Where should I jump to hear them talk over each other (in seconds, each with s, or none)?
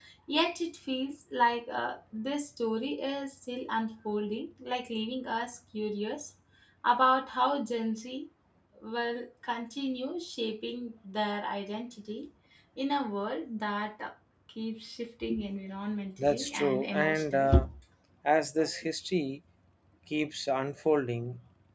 16.2 s